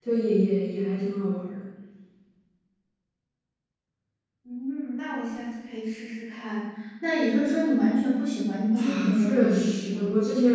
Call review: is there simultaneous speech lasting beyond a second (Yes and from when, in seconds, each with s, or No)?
Yes, from 8.7 s